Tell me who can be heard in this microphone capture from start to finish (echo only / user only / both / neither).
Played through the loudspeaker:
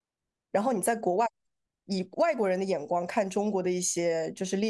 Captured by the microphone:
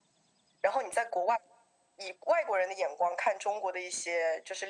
echo only